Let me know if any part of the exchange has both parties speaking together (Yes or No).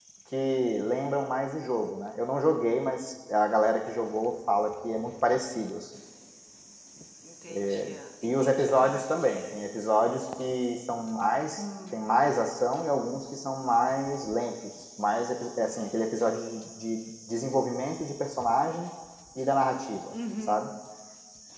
Yes